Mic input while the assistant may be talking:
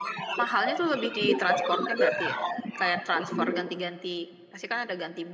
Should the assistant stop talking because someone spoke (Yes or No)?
Yes